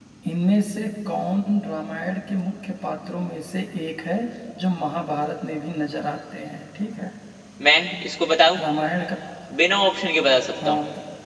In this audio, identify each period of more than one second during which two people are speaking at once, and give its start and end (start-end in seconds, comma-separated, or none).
none